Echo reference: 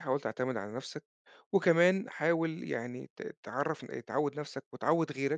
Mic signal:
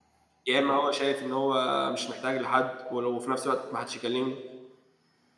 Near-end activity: present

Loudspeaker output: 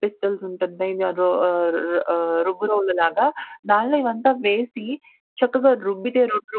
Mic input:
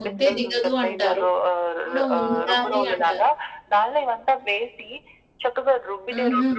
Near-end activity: present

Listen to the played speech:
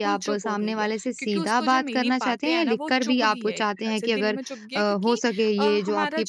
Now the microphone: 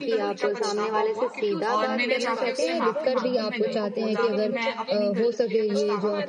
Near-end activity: present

